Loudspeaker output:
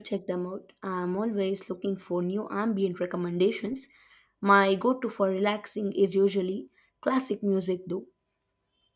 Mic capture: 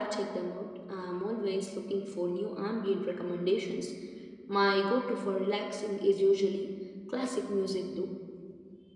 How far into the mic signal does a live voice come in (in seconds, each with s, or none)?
none